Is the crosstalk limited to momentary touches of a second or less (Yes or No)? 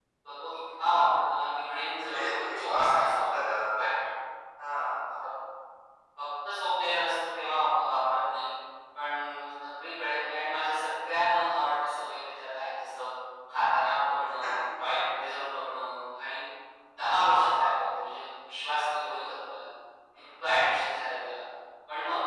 No